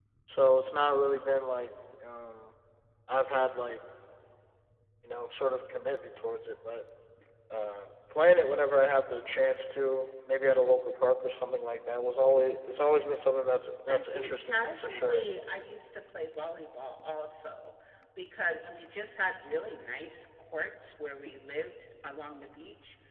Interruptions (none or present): present